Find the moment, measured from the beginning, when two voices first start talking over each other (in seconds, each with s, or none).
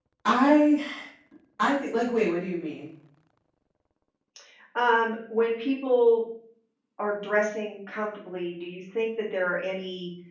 none